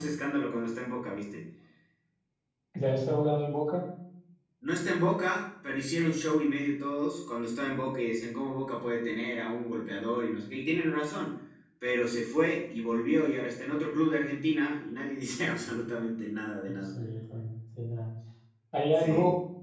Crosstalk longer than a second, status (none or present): none